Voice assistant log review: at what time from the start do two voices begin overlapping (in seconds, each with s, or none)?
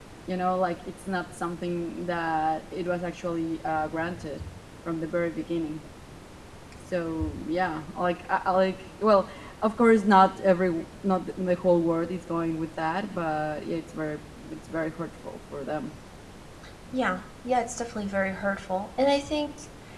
none